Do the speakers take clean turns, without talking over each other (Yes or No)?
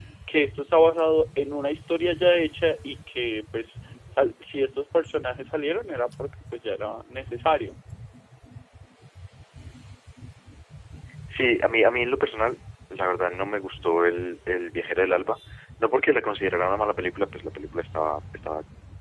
Yes